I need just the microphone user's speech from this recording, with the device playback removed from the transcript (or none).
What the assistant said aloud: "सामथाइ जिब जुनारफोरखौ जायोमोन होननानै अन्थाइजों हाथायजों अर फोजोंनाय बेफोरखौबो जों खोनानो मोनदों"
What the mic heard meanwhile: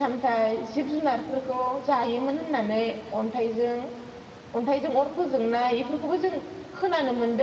none